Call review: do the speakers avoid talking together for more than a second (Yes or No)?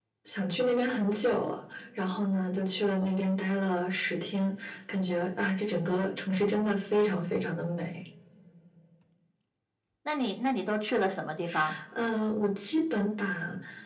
Yes